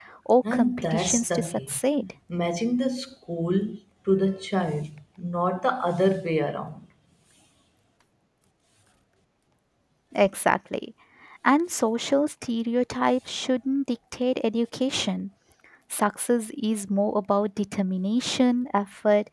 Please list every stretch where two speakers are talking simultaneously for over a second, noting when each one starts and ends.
0.5-1.8

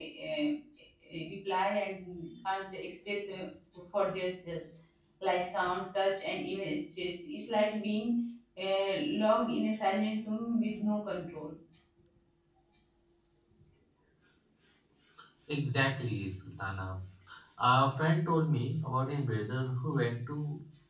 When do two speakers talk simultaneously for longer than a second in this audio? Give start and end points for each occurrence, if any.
none

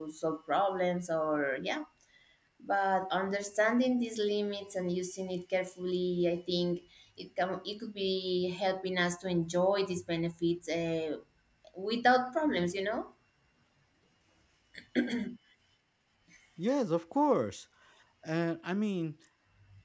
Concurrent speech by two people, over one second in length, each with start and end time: none

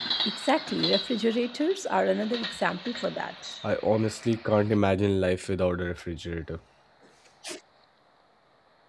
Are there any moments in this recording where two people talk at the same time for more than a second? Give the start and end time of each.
none

